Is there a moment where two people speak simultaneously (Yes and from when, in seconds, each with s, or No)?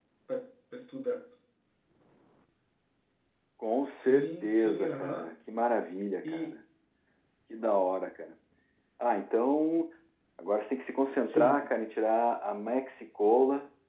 Yes, from 4.0 s